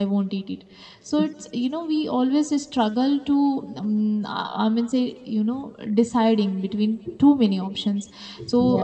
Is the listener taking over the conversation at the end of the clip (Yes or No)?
No